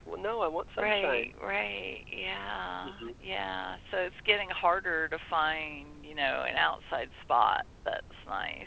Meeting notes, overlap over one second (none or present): none